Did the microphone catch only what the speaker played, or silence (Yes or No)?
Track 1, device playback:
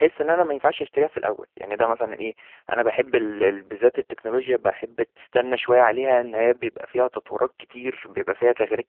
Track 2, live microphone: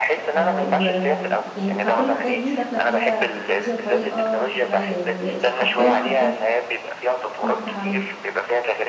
No